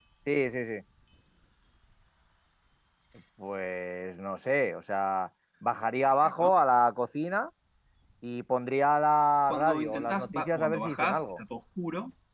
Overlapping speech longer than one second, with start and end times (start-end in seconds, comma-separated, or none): 9.5-11.4